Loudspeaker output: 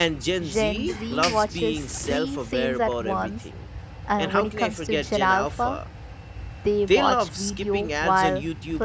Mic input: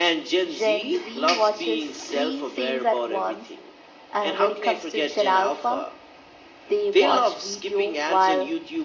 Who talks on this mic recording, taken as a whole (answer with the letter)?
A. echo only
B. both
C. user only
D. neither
A